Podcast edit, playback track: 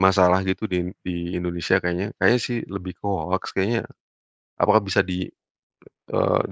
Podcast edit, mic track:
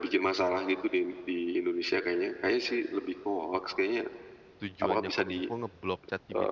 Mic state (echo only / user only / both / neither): both